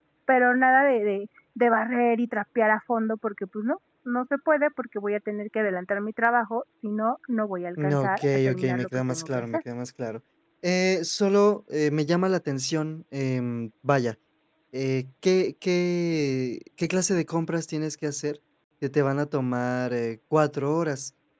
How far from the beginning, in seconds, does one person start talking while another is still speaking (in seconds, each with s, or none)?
7.8 s